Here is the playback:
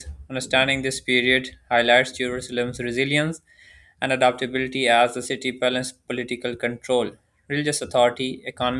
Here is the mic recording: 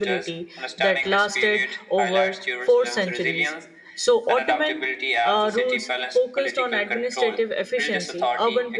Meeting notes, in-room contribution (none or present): present